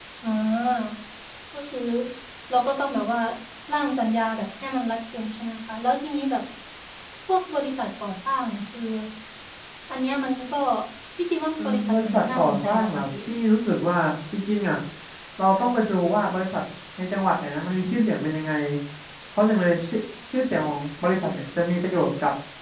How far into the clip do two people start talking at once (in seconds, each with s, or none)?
11.6 s